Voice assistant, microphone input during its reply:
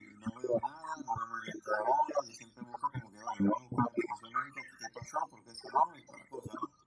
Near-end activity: none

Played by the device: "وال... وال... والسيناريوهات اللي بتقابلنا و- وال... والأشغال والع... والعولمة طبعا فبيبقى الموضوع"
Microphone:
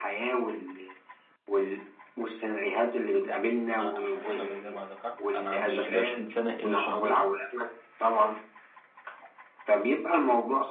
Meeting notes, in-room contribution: present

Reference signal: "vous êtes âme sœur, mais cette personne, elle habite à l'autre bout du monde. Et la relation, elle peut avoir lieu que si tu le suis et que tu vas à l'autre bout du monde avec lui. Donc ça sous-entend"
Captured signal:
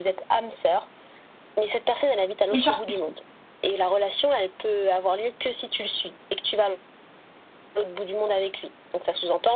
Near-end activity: present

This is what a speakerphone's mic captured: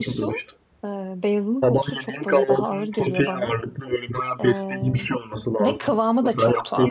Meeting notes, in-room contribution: present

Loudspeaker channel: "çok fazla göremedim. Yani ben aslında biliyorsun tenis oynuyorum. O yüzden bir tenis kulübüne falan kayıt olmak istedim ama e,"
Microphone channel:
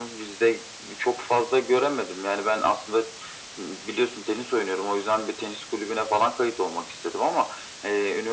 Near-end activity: none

